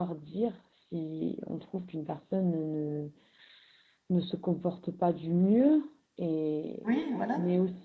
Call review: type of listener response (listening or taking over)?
listening